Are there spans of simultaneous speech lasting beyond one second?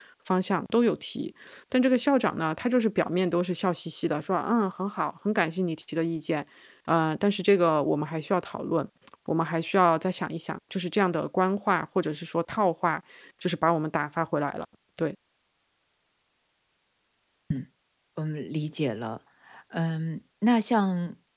No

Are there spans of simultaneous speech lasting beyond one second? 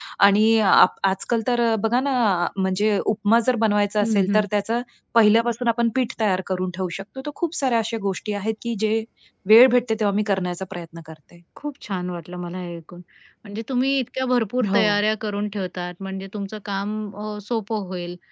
No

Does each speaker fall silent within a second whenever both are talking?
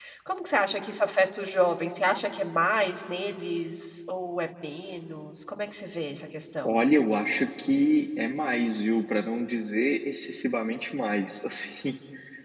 Yes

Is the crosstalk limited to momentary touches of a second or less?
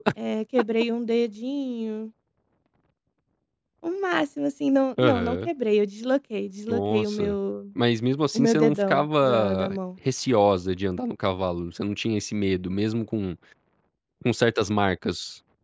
No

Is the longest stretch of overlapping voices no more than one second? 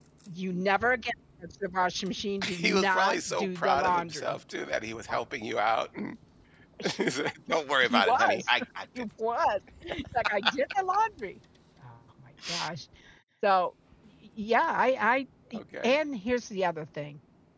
No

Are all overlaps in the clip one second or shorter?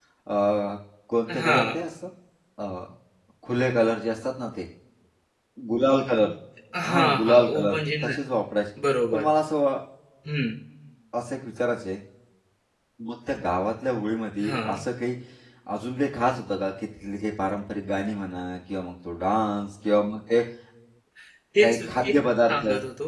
No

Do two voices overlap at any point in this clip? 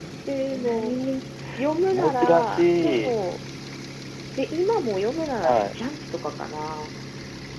Yes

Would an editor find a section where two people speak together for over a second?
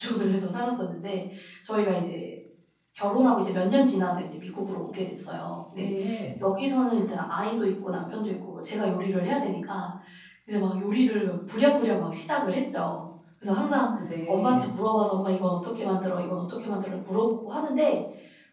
No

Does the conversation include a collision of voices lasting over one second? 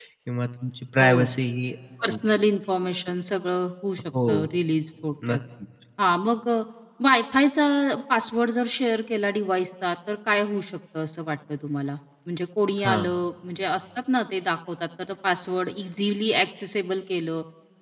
No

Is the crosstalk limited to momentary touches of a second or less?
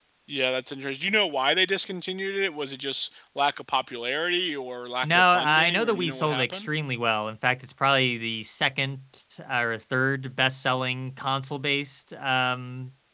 No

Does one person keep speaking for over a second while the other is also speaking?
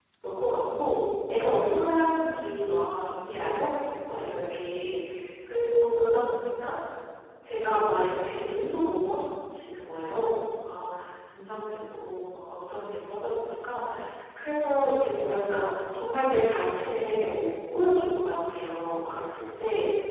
No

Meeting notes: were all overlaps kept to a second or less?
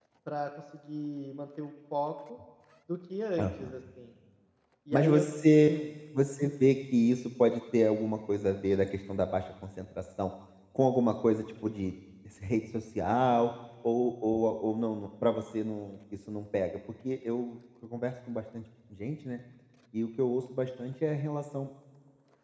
Yes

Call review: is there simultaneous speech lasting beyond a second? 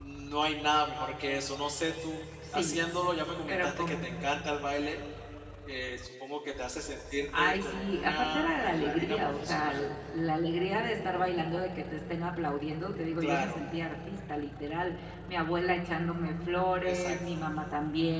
Yes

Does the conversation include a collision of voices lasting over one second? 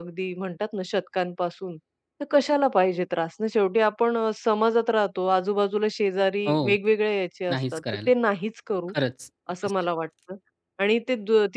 No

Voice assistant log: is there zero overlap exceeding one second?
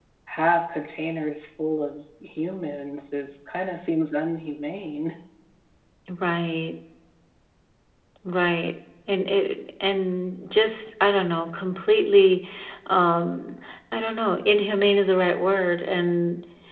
Yes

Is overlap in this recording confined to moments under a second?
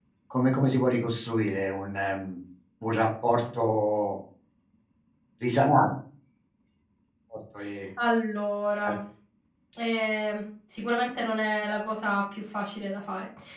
Yes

